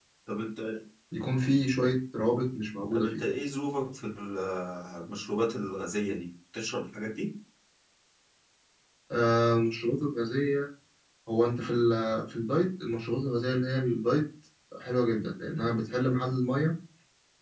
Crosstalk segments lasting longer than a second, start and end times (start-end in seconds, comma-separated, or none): none